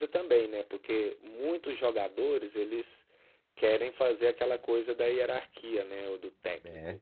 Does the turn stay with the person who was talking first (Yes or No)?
Yes